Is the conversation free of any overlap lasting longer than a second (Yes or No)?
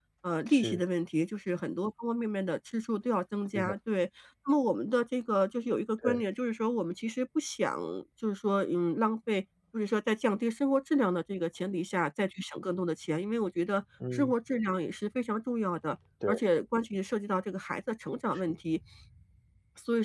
Yes